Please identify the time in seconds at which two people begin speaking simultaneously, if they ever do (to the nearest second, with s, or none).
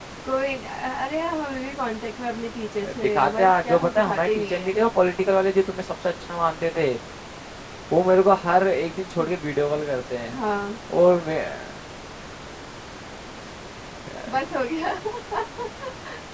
3 s